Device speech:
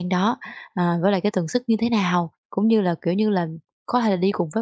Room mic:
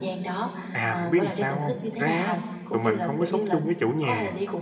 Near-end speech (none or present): present